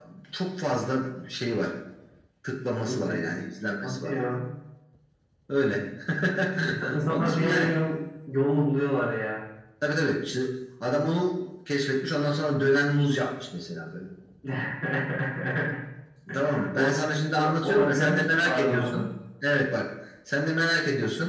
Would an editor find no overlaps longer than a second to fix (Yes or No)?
No